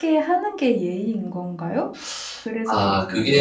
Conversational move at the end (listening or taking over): taking over